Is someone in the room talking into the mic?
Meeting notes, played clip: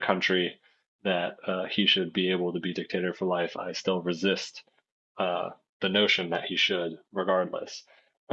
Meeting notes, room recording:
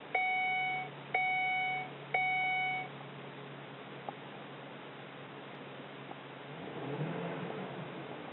No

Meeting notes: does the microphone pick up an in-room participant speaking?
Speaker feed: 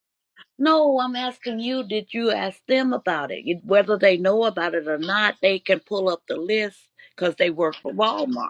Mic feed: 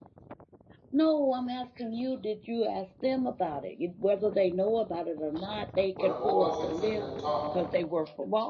Yes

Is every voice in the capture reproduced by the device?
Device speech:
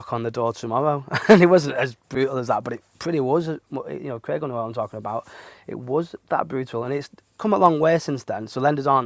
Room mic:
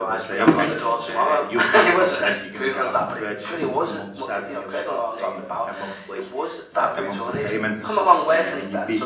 No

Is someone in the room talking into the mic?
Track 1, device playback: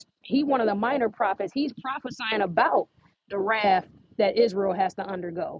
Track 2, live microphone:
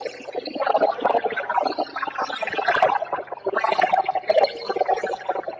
No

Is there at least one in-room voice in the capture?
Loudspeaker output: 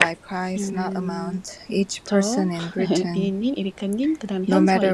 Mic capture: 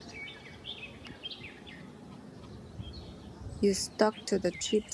Yes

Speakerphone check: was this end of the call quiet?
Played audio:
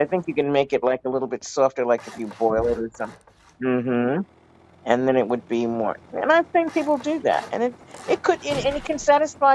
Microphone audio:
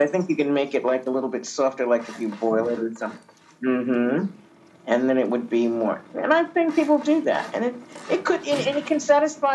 Yes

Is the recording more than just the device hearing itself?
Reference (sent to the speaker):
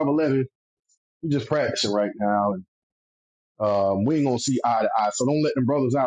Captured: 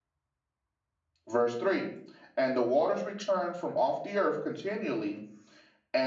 Yes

